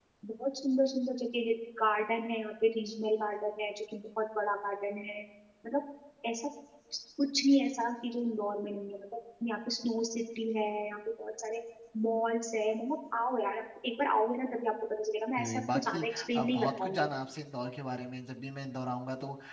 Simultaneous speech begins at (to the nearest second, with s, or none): 15 s